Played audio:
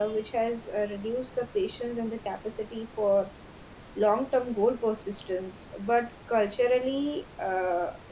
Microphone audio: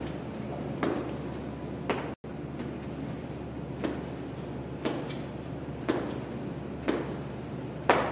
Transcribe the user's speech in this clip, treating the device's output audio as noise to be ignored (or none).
none